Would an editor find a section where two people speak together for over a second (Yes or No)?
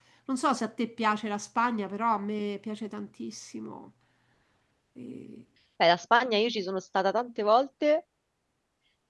No